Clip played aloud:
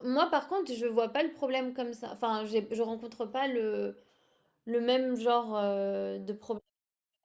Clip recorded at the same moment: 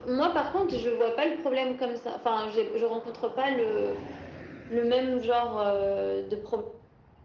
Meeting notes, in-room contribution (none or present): none